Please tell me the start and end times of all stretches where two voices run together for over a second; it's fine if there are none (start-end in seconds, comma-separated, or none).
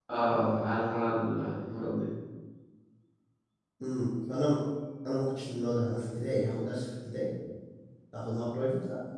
none